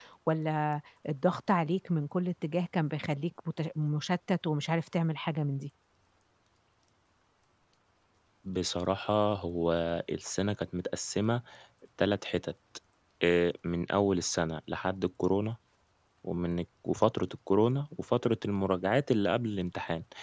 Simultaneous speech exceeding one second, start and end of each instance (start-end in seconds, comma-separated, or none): none